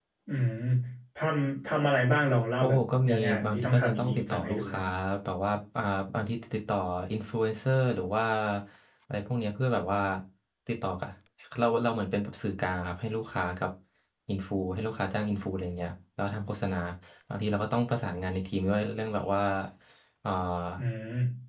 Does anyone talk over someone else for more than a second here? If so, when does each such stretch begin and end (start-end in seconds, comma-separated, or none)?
2.6-4.8